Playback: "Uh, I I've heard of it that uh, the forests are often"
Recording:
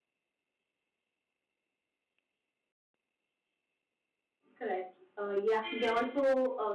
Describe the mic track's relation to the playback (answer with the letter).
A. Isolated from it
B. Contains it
A